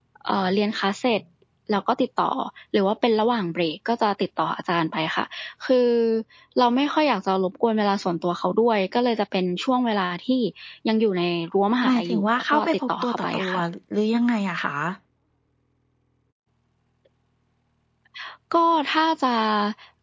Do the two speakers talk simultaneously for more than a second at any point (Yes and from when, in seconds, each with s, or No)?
Yes, from 11.8 s